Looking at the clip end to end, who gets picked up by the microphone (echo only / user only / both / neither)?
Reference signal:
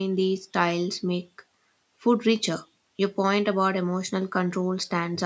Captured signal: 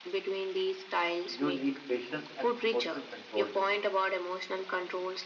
both